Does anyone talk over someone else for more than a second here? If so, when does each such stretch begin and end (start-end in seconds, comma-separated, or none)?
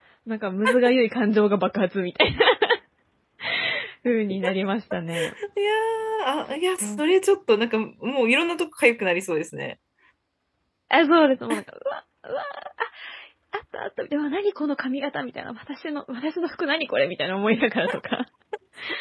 none